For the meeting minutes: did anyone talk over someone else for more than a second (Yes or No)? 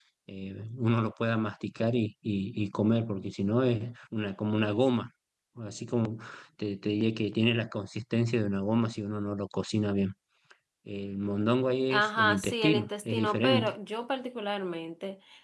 Yes